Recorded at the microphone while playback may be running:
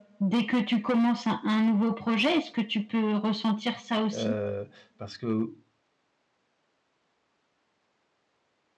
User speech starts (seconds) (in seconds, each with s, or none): 4.1 s